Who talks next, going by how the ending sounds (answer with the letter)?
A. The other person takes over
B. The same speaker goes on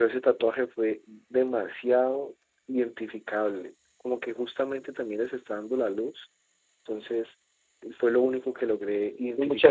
A